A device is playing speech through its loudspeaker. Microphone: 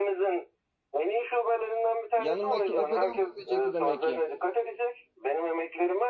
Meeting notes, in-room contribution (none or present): present